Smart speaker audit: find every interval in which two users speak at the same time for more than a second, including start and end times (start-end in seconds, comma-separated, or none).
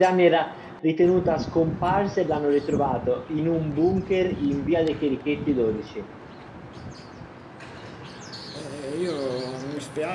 none